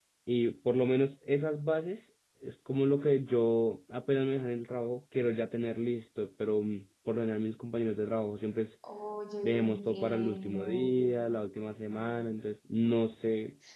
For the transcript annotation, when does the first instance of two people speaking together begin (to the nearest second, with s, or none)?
9 s